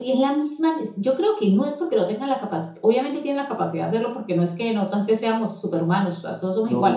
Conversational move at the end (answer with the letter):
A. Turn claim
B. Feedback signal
B